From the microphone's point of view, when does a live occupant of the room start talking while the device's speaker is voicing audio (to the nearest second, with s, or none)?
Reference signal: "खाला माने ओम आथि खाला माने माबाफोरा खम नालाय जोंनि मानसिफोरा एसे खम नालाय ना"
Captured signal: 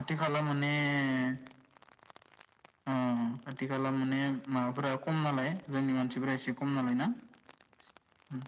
none